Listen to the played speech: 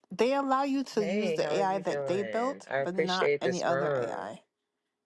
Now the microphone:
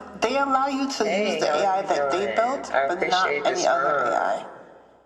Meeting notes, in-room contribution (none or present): none